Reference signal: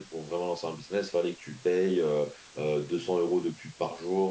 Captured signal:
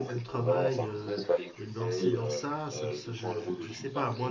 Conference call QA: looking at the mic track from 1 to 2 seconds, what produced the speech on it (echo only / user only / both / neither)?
both